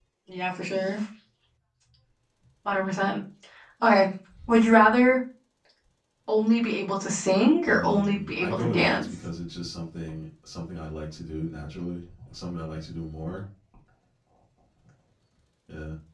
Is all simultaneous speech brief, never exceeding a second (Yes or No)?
No